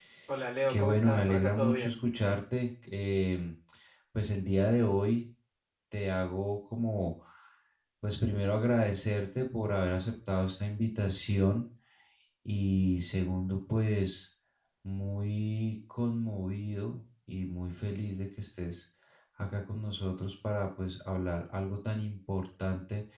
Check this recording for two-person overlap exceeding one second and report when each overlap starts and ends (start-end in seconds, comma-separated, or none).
0.7-1.9